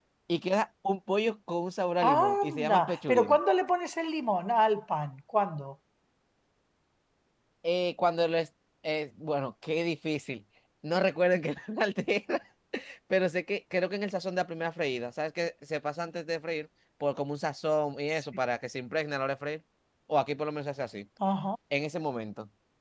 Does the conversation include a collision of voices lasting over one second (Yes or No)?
Yes